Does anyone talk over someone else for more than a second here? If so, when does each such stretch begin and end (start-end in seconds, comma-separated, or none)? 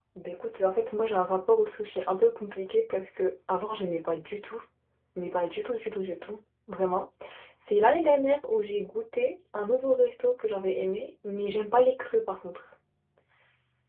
none